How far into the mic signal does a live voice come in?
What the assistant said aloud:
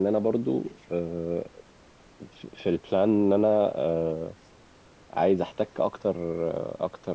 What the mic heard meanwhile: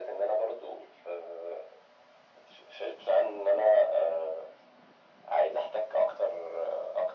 none

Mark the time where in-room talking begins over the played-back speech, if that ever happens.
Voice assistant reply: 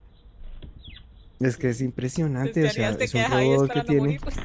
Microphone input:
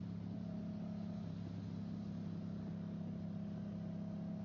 none

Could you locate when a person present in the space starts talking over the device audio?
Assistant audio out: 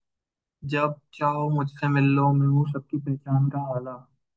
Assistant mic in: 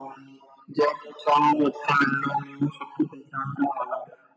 none

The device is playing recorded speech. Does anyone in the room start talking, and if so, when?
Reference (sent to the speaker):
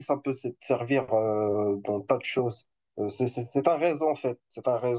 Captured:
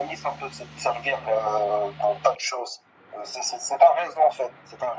none

